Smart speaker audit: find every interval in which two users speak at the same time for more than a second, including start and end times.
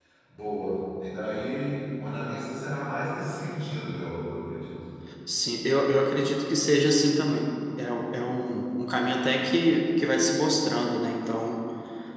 none

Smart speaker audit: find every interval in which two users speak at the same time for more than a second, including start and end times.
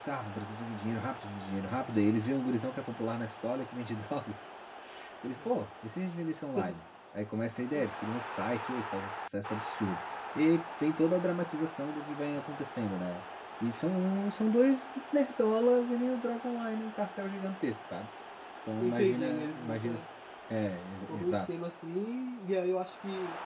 18.8-20.0

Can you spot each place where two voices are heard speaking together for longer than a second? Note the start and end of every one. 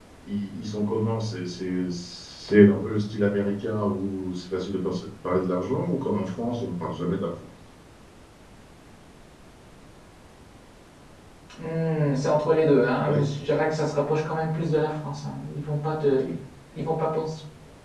none

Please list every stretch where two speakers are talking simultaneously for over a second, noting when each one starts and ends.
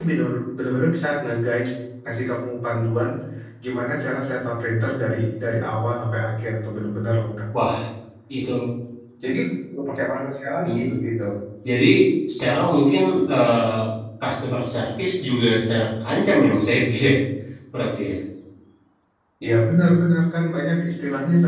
none

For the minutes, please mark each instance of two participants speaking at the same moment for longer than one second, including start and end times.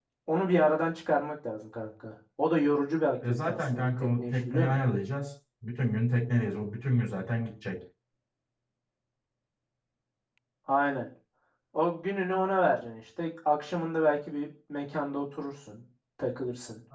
3.3-4.8

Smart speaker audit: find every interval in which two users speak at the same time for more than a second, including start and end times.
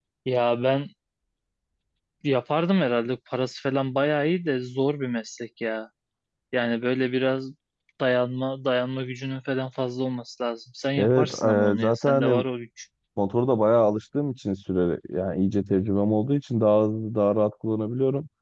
11.0-12.4

